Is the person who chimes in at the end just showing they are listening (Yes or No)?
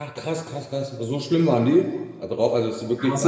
No